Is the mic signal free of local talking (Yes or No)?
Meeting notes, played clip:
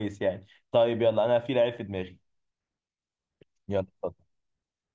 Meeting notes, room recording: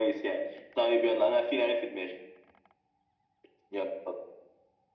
Yes